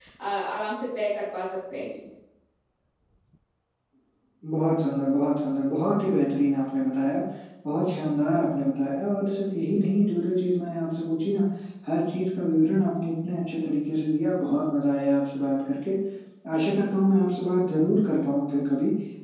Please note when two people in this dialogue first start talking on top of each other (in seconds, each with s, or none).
none